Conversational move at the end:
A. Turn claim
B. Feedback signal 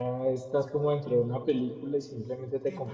B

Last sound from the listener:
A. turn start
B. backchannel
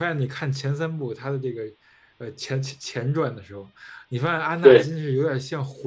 B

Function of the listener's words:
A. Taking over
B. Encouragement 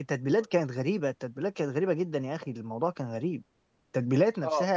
B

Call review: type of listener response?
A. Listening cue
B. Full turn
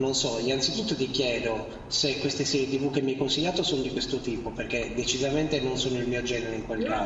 B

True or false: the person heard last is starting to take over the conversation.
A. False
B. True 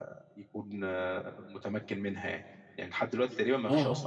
A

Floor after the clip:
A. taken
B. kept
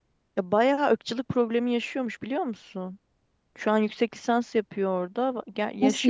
B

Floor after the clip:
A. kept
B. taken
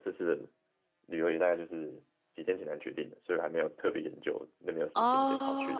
B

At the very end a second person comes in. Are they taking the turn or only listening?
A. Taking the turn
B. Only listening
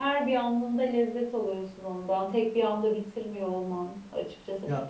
B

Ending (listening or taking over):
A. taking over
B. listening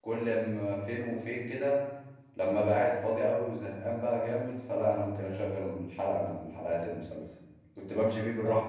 B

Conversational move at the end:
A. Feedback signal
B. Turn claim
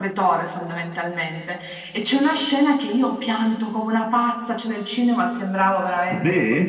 A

